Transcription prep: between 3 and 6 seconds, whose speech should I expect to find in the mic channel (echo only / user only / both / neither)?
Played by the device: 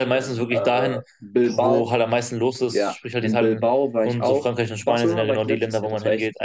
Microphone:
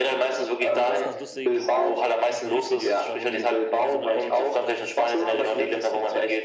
both